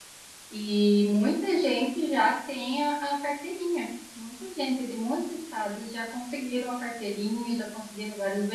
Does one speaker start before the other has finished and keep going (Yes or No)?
No